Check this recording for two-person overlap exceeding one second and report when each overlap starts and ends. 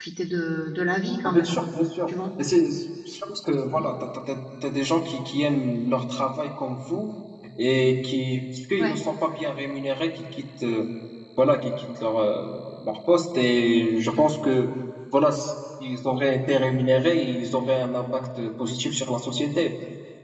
none

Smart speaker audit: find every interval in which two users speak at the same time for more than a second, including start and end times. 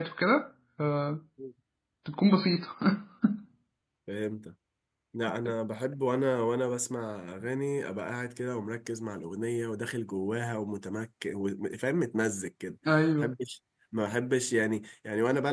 none

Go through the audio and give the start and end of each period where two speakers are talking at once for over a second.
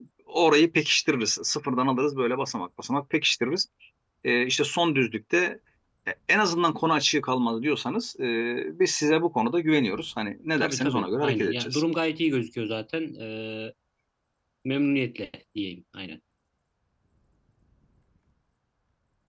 10.6-11.8

